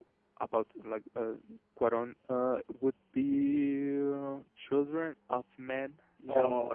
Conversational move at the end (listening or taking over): taking over